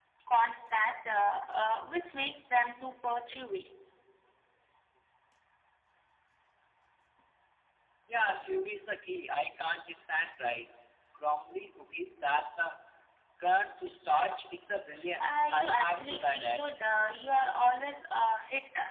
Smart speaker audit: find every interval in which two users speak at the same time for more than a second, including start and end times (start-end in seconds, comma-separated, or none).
15.2-16.6